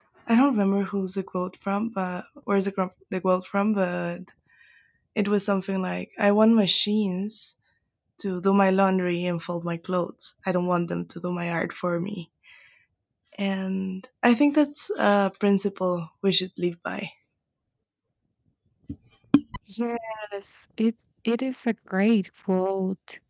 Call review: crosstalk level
none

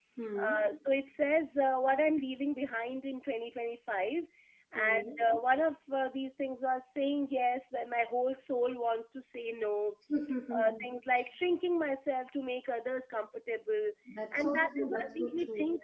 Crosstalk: present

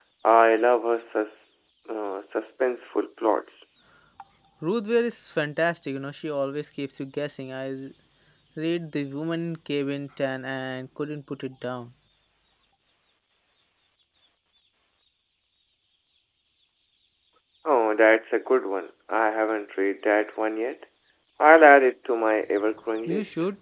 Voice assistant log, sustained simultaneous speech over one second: none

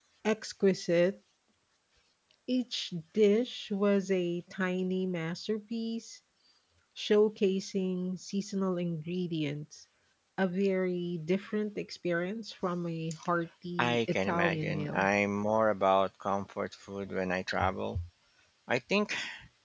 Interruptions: present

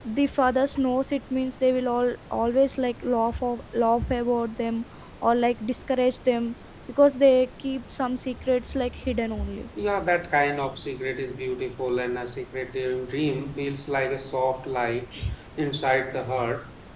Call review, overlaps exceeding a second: none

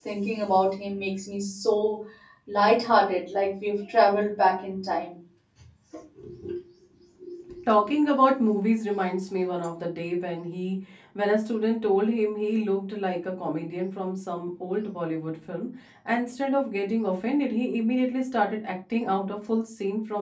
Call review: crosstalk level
none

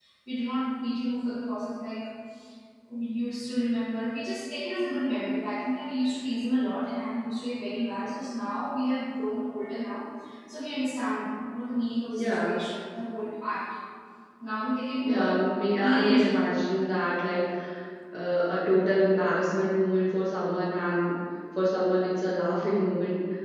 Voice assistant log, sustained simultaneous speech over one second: none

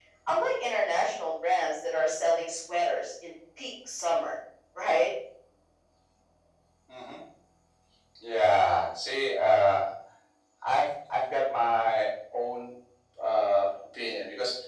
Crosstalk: none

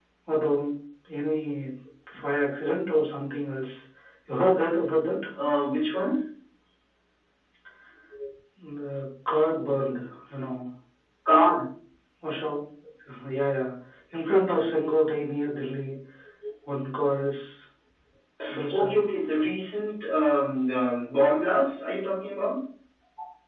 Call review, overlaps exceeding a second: none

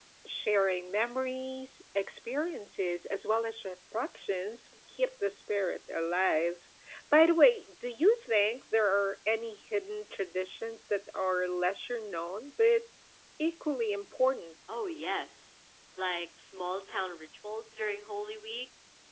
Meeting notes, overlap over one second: none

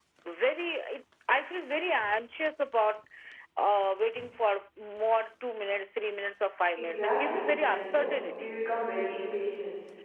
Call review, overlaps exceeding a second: present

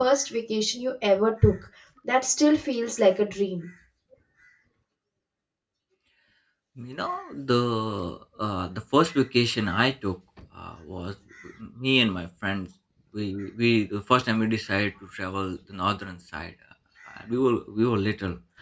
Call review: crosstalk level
none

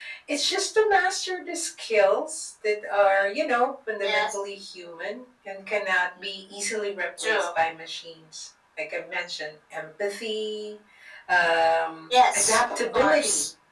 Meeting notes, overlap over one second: present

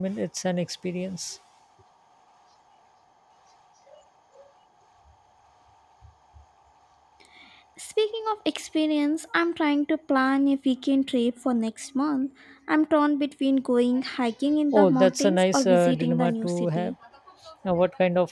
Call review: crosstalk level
present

